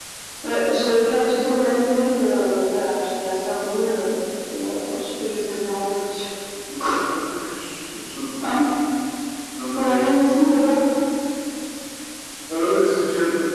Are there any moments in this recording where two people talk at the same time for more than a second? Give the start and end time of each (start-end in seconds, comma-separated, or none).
none